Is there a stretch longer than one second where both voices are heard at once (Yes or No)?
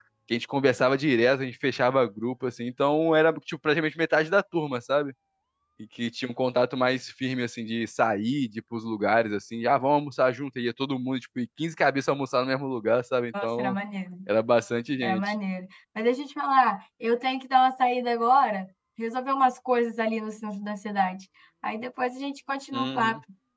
No